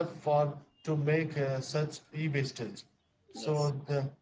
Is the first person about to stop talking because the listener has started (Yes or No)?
No